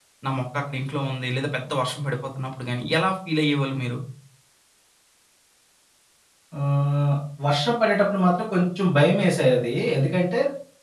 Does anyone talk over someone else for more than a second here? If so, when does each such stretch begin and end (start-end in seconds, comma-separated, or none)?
none